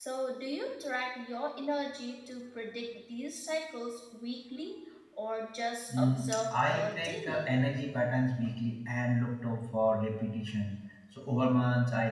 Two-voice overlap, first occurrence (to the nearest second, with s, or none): 6 s